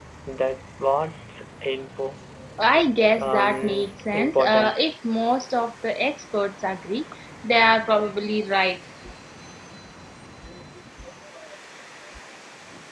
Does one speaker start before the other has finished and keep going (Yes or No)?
Yes